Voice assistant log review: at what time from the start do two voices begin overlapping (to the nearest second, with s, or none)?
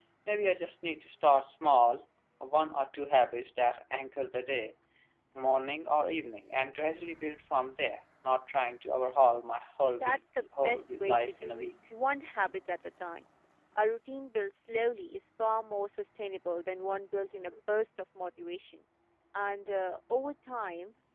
10 s